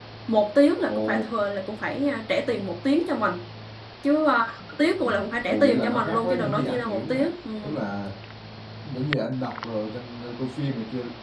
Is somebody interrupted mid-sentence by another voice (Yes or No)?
Yes